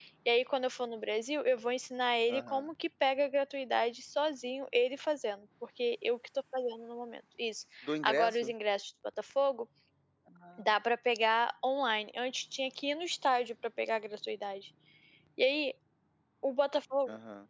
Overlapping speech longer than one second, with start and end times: none

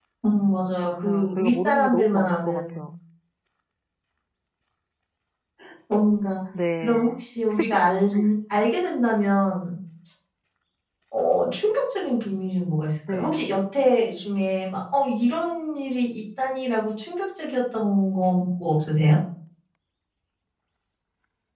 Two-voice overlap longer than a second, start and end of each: 0.8-2.8

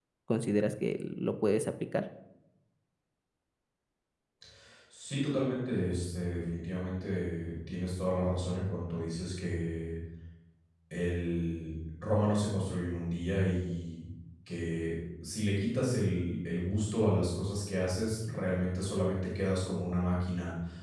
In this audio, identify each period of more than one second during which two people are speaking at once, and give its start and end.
none

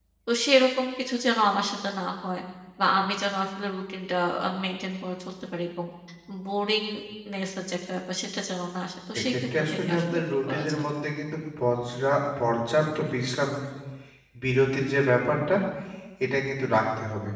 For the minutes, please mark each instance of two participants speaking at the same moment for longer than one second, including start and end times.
9.3-10.8

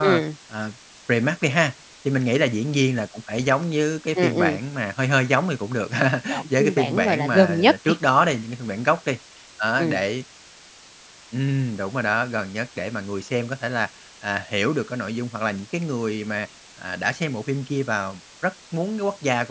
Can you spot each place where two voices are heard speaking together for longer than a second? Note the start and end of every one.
6.6-7.9

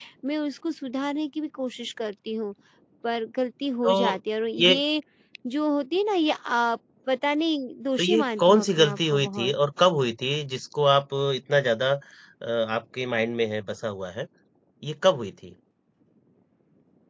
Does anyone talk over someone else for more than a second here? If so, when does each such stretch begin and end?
8.0-9.5

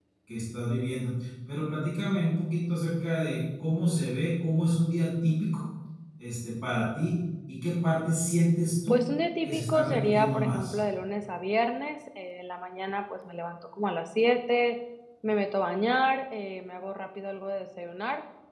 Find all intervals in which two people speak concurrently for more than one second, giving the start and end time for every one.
9.4-10.8

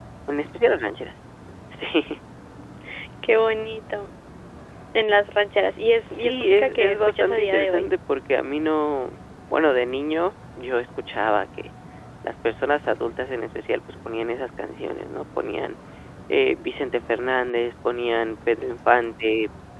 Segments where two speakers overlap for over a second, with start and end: 6.0-7.9

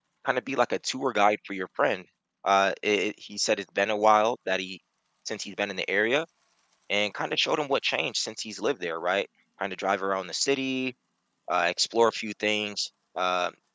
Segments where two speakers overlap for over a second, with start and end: none

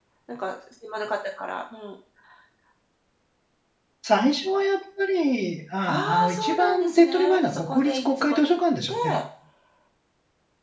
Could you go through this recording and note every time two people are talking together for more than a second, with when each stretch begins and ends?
5.9-8.6

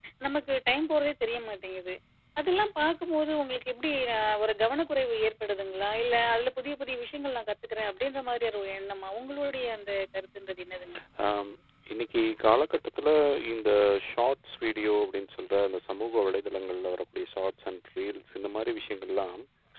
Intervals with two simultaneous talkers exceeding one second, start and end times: none

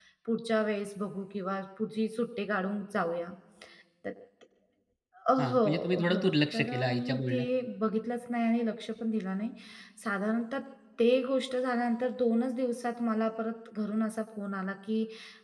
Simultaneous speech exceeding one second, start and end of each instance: 5.4-7.4

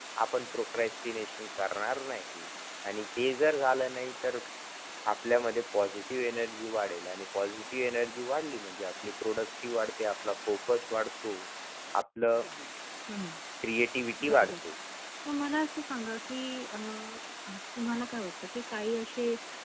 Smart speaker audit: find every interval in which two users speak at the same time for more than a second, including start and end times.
none

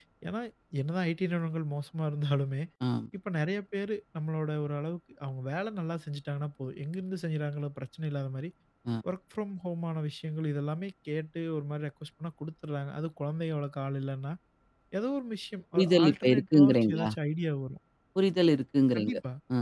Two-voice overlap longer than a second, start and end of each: 15.7-17.1

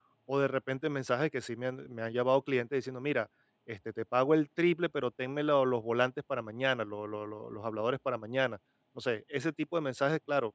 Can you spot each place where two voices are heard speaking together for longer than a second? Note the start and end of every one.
none

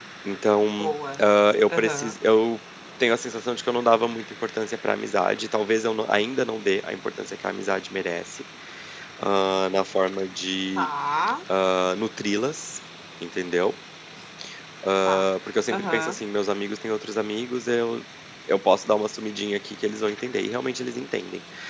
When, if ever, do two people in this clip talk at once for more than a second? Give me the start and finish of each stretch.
none

